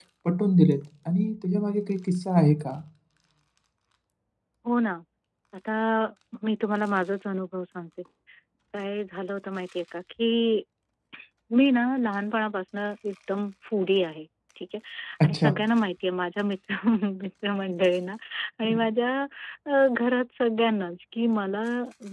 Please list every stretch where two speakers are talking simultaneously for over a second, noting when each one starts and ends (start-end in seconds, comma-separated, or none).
none